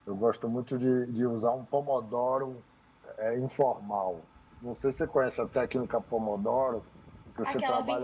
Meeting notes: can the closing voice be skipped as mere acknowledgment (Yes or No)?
No